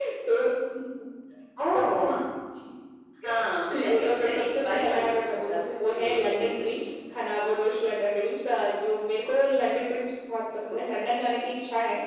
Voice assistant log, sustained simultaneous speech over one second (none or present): present